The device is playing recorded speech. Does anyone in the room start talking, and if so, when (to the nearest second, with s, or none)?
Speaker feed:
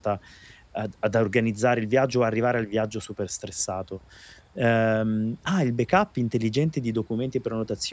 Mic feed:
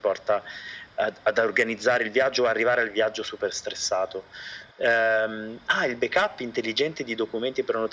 none